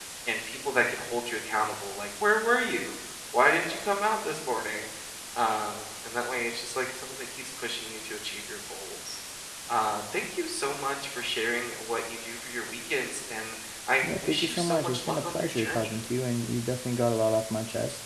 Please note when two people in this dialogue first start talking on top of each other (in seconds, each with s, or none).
14.0 s